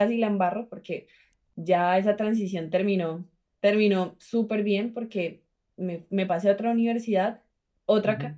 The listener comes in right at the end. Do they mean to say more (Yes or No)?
No